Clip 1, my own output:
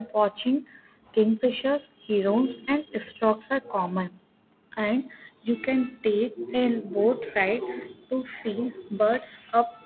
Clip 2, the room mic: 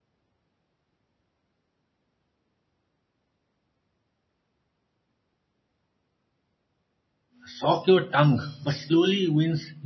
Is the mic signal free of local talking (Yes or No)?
No